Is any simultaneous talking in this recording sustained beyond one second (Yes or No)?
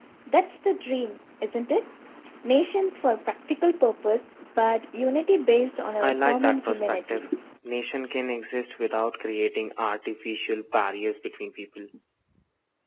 Yes